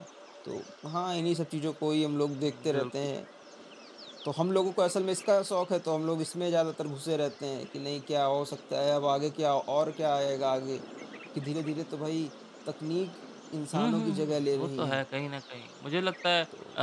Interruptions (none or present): present